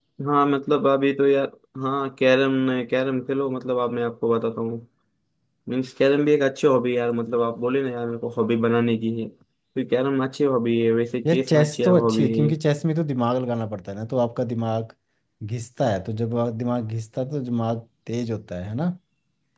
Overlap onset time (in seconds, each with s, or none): 11.2 s